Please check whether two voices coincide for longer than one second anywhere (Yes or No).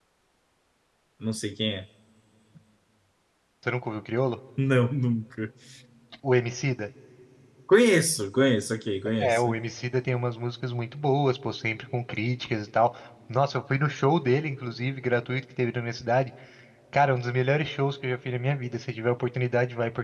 No